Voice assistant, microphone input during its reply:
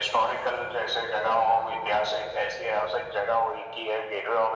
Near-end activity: none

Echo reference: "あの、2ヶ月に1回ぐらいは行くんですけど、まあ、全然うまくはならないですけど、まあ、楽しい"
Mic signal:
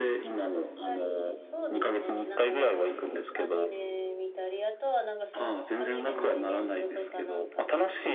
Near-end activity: present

